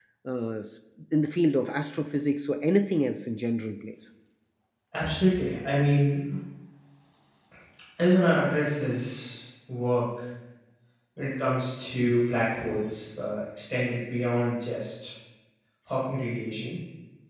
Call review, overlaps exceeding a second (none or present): none